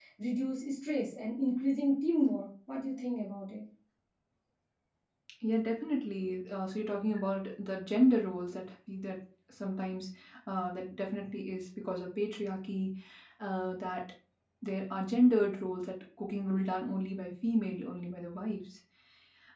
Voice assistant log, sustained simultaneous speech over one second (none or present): none